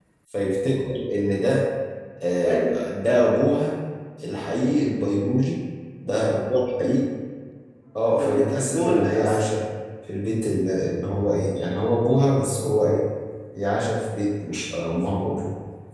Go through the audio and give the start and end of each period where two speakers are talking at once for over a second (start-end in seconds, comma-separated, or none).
8.2-9.4